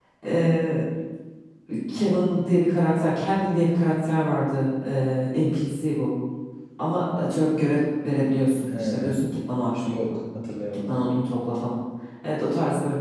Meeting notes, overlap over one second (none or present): none